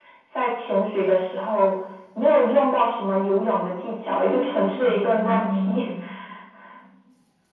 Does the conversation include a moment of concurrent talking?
Yes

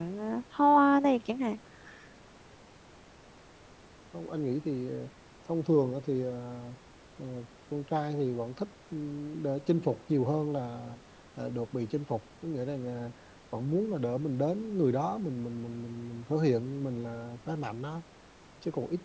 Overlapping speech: No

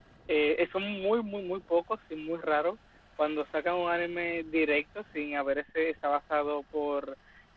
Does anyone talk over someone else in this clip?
No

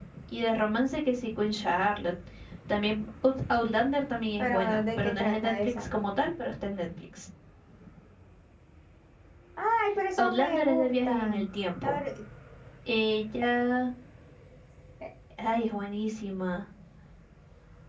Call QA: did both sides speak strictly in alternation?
No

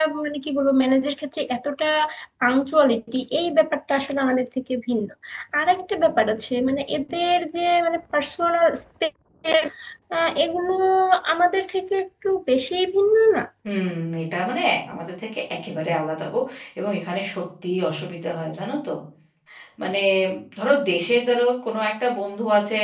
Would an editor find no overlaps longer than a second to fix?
Yes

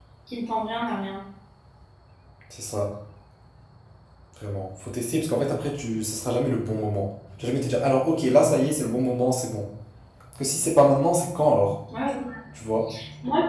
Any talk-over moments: No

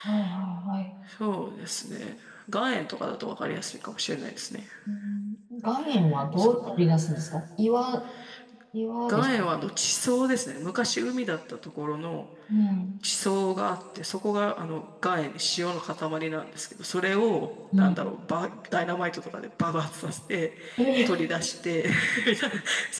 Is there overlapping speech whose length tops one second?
No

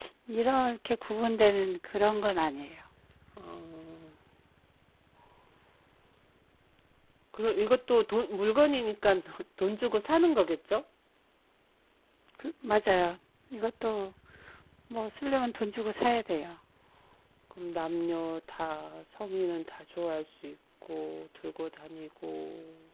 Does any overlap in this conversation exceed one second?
No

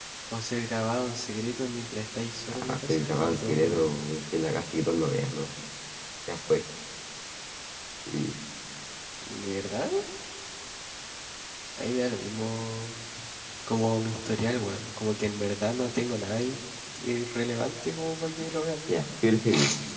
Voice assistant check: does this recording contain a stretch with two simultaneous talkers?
Yes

